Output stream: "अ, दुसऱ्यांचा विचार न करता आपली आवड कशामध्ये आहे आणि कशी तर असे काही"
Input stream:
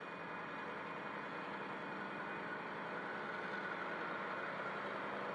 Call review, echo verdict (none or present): none